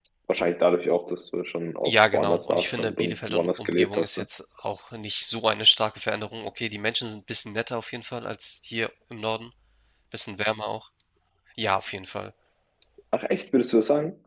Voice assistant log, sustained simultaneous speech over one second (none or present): present